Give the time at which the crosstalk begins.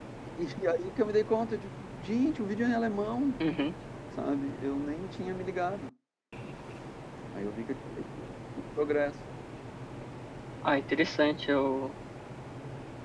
none

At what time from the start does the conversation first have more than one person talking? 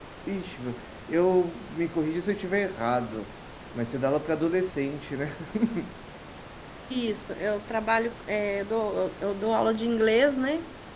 none

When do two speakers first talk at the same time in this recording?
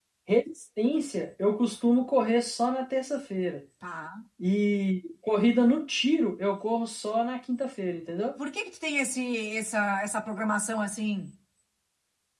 none

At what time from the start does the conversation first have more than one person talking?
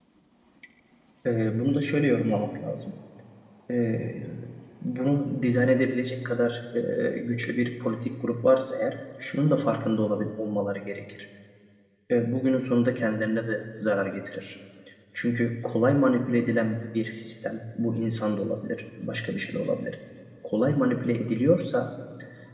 none

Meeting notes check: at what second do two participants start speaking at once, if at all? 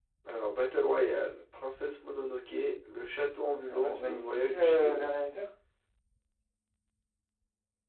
4 s

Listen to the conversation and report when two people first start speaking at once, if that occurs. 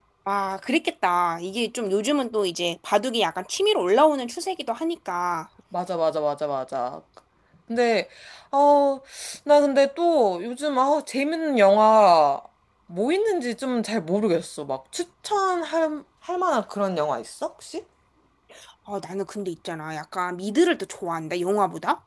none

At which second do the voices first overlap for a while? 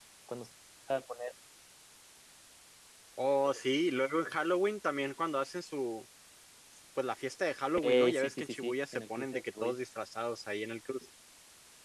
8 s

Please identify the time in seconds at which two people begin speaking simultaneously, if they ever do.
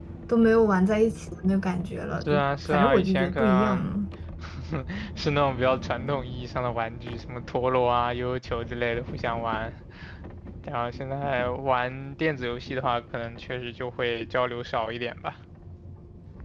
2 s

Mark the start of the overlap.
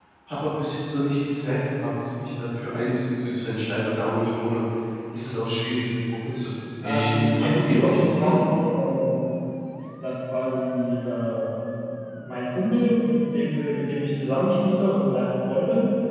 7 s

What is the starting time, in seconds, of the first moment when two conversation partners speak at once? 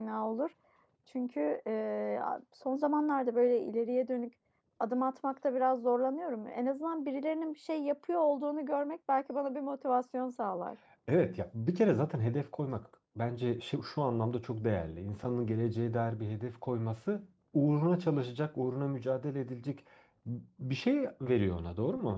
none

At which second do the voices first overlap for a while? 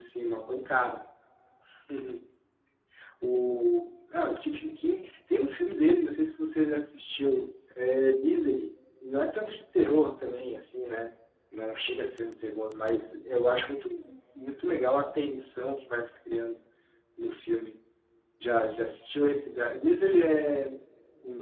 none

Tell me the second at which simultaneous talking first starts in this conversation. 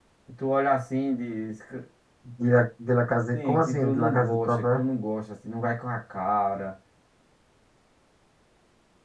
3 s

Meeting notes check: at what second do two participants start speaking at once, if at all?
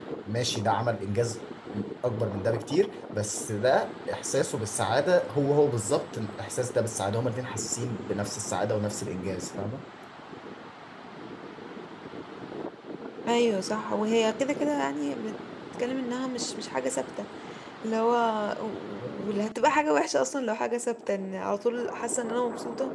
none

